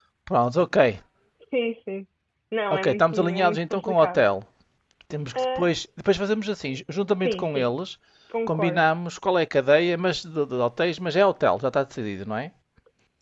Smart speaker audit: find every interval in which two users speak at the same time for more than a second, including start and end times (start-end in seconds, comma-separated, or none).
2.7-4.2